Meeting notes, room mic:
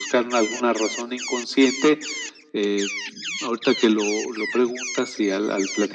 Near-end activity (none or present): none